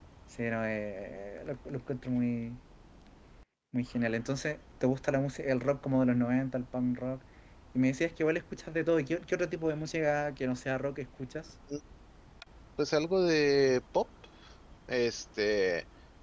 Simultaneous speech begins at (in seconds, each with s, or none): none